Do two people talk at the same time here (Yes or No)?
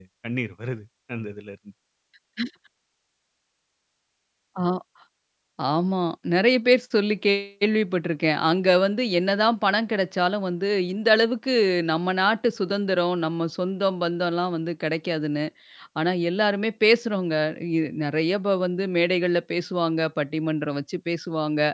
No